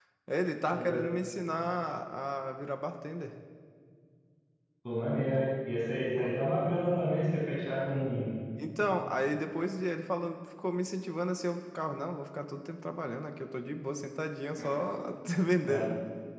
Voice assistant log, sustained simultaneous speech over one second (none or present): none